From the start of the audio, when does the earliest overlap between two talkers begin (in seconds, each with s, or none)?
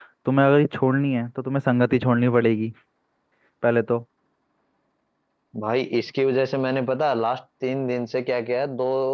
none